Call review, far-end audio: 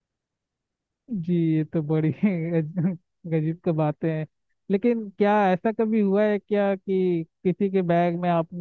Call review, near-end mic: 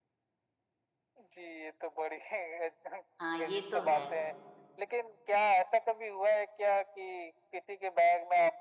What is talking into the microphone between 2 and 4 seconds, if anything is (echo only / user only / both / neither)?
both